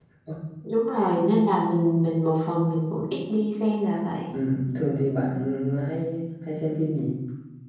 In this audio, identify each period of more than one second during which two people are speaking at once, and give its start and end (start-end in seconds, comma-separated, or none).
none